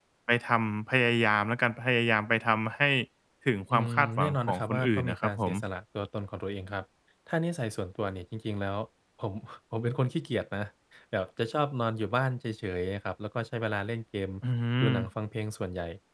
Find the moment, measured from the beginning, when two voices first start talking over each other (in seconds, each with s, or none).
3.7 s